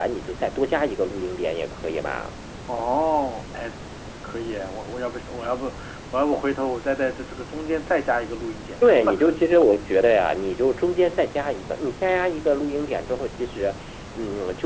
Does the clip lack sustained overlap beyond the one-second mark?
Yes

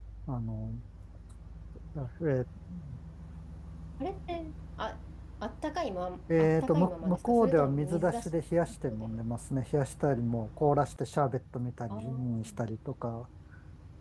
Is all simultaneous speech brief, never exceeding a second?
No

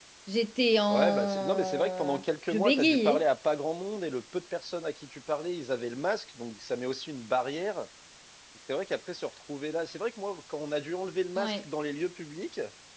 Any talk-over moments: Yes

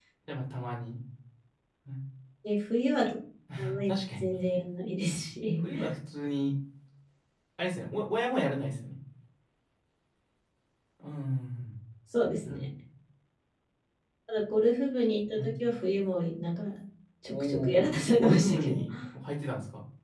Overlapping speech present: Yes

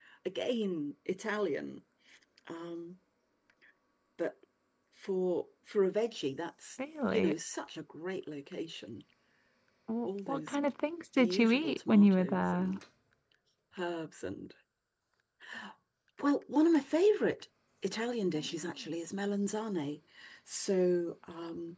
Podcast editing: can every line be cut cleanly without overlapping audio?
No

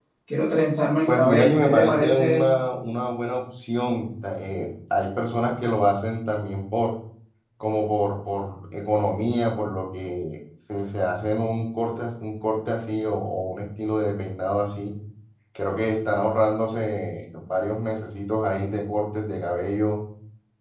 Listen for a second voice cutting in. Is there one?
Yes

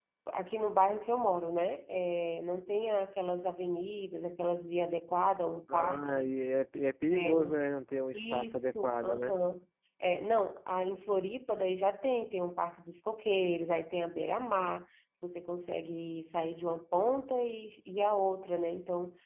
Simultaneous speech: Yes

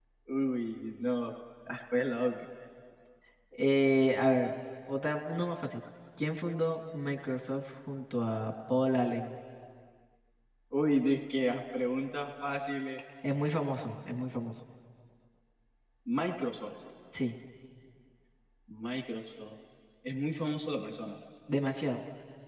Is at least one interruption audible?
No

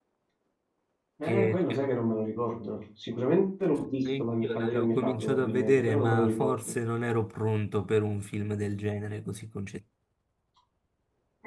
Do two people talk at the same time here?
Yes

